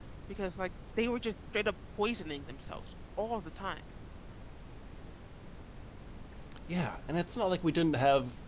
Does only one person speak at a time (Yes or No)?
Yes